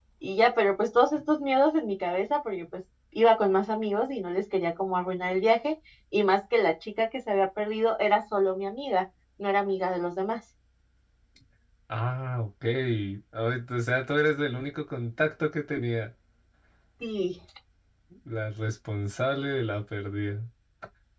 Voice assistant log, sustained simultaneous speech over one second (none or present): none